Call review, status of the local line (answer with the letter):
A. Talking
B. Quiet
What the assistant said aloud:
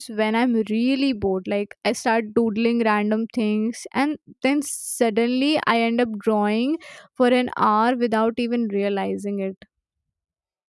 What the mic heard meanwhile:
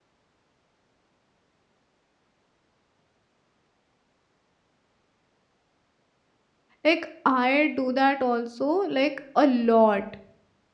A